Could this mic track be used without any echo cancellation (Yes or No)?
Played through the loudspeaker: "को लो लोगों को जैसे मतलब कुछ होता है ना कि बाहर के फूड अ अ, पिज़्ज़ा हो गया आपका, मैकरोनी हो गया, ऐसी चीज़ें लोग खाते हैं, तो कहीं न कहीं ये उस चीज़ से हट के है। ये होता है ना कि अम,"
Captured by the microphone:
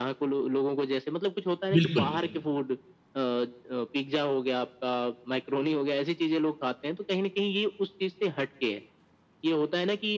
No